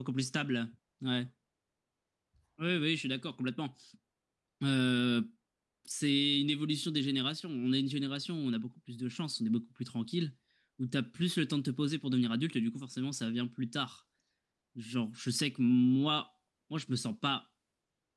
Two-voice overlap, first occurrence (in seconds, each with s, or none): none